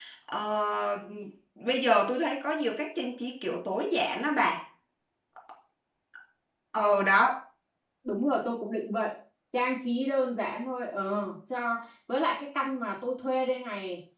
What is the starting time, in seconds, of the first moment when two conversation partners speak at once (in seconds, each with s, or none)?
none